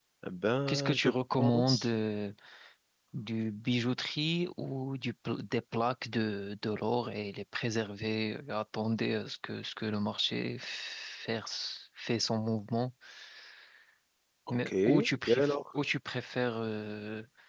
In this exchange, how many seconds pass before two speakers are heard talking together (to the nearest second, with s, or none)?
1 s